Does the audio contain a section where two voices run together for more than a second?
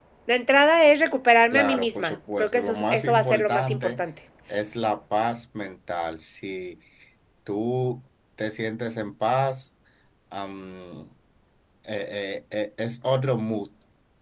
Yes, from 1.5 s

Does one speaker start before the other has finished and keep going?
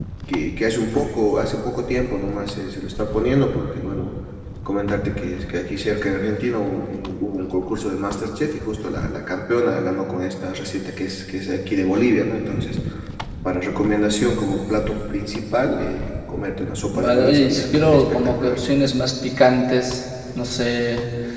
Yes, from 16.9 s

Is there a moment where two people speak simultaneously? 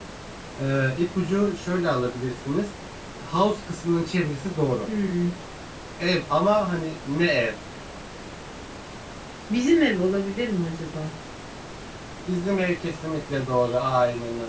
No

